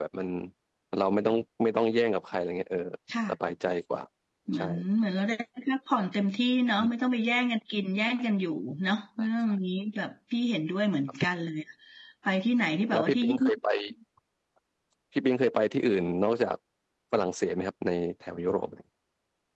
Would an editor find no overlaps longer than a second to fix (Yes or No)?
Yes